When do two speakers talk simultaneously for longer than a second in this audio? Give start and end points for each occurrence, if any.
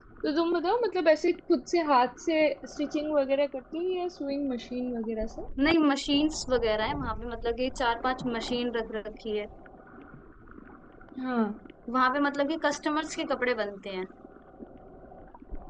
none

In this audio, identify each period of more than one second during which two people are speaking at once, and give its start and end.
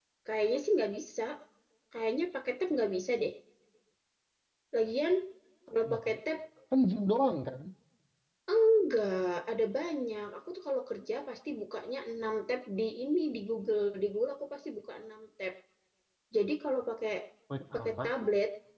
none

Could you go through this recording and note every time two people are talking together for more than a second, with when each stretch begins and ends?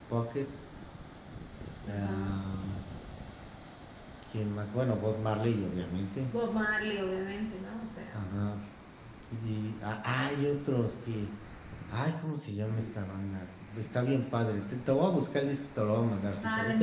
none

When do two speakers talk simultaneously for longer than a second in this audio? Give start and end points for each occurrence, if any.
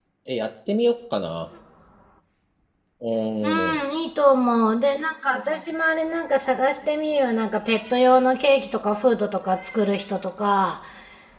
none

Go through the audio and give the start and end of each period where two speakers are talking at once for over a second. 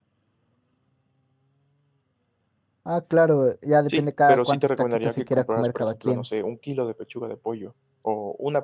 3.9-6.2

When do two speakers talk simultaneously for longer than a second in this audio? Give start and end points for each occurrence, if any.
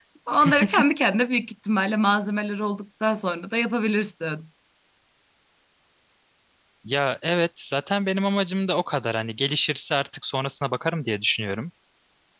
none

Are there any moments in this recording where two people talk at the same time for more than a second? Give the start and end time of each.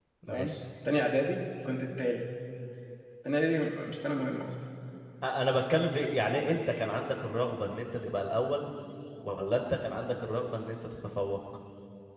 none

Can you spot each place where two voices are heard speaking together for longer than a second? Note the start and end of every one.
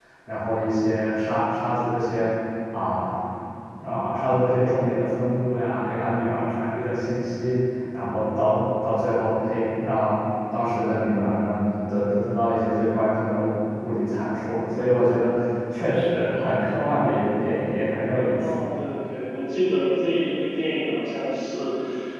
none

